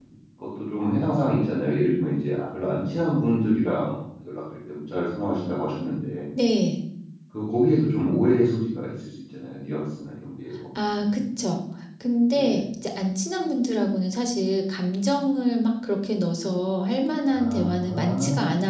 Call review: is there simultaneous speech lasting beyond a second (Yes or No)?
Yes